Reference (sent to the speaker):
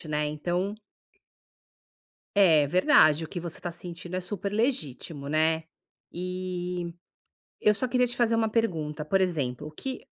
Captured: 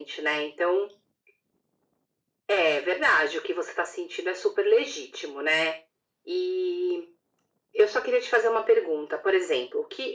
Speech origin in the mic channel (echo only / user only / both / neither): echo only